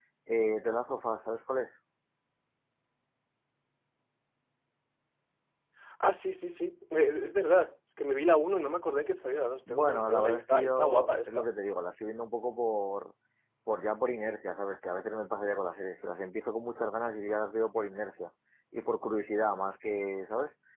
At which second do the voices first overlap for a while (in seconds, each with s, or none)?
9.7 s